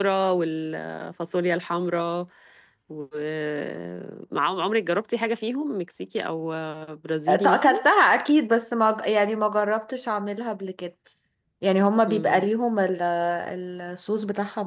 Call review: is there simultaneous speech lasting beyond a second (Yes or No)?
No